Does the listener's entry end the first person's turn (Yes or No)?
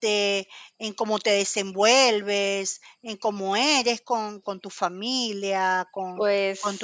No